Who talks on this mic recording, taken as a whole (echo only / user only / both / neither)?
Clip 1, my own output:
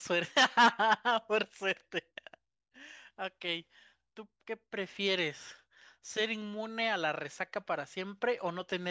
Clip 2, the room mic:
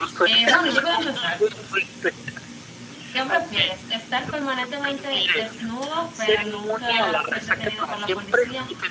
both